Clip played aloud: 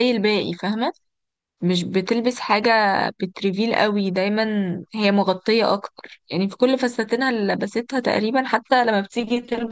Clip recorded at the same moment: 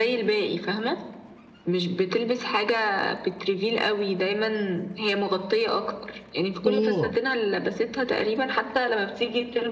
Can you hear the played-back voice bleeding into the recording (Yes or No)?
Yes